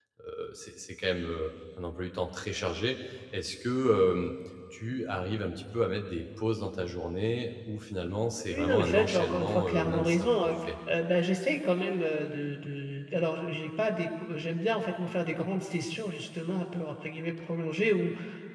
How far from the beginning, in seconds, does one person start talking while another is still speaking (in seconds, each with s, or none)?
8.5 s